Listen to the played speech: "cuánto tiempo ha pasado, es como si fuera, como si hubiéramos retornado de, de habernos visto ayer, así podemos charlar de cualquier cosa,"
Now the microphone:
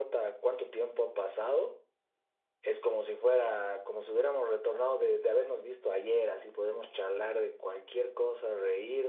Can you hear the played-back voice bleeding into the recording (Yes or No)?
Yes